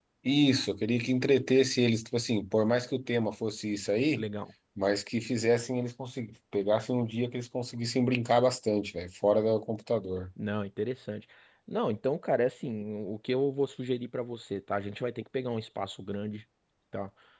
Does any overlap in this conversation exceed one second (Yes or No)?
No